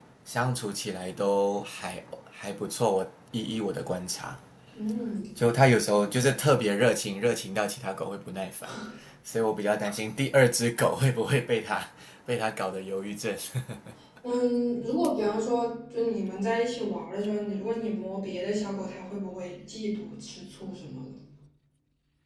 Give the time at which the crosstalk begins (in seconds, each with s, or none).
none